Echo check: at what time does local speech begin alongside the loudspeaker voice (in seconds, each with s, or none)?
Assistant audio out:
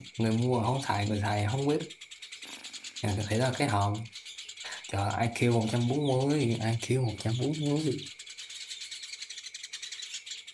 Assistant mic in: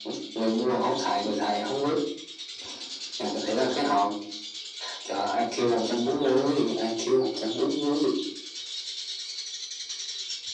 none